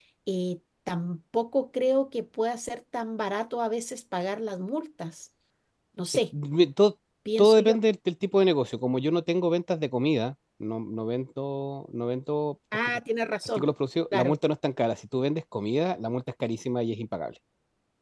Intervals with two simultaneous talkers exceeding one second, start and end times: none

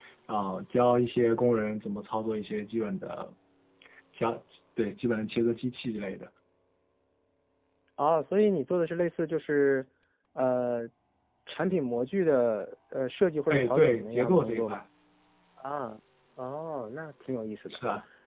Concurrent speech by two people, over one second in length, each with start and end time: 13.5-14.8

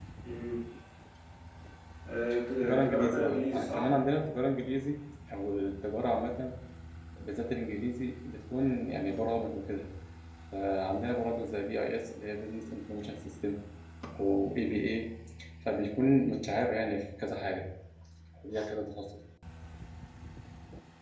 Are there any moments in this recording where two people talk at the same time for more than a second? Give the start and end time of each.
2.6-3.9

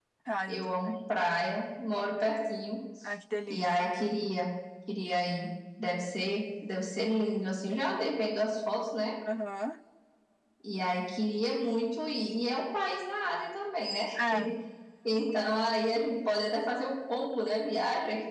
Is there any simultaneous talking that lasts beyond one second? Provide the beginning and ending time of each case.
none

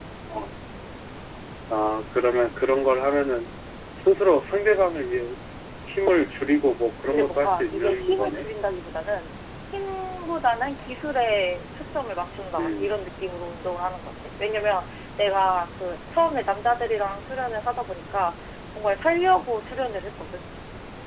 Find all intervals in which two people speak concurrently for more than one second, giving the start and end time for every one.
7.0-8.5

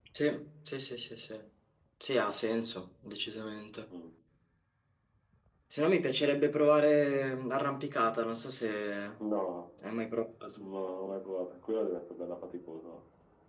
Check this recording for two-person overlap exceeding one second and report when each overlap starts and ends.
none

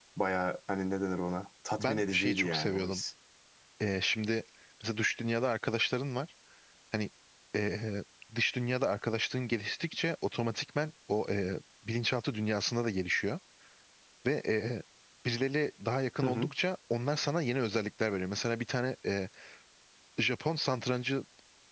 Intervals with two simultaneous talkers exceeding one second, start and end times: 1.8-3.0

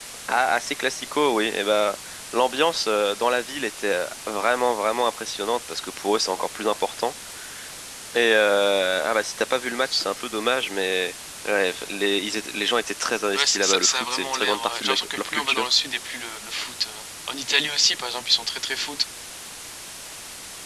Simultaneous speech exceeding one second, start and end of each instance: 13.3-15.7

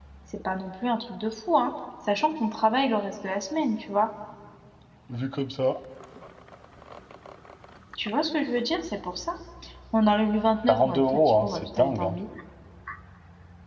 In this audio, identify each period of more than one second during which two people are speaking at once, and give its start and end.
10.7-12.2

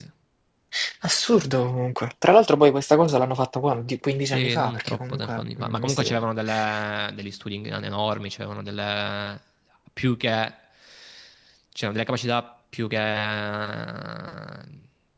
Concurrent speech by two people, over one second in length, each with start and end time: 4.2-6.1

